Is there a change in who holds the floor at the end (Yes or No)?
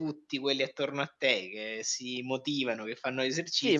Yes